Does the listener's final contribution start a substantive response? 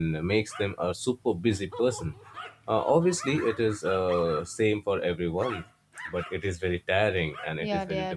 Yes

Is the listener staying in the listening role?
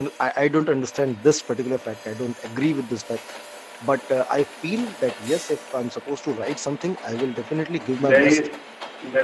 No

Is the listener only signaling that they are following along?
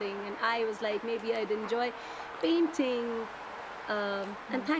Yes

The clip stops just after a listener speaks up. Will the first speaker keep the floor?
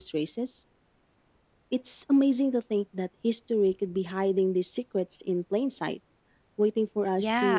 No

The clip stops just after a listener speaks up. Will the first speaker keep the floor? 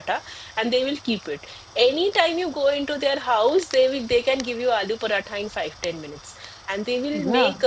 Yes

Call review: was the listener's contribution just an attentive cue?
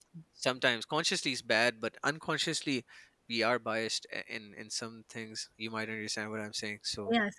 No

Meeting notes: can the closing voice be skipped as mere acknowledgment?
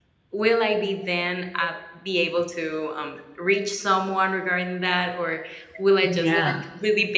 Yes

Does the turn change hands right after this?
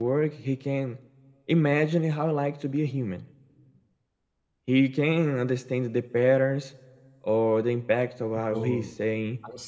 Yes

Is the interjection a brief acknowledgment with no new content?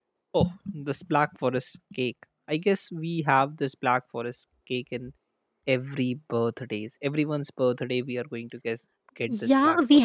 No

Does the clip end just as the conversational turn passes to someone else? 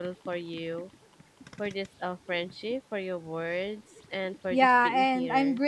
Yes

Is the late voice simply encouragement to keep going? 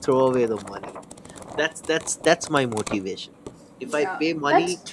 No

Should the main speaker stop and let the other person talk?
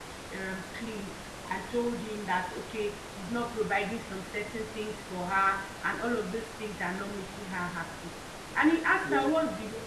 No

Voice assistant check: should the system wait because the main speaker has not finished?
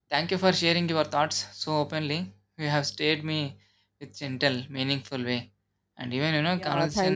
No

